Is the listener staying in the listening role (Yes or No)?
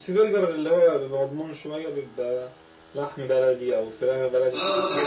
No